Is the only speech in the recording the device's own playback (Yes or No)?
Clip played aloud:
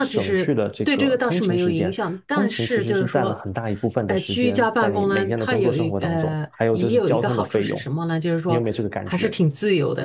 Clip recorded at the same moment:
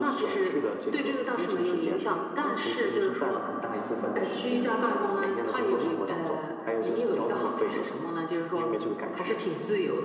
Yes